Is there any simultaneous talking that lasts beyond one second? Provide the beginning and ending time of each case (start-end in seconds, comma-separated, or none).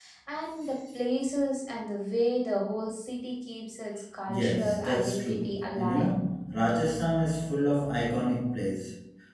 4.3-6.1